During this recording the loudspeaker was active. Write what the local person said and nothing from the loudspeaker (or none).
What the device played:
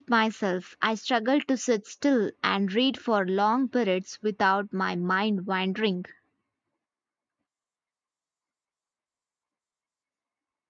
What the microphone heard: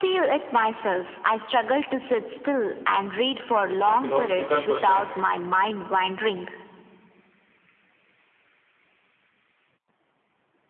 It's a philosophical question